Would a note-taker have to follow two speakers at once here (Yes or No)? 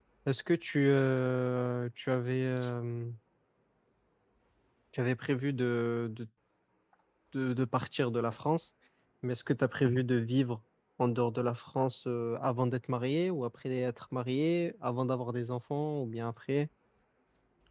No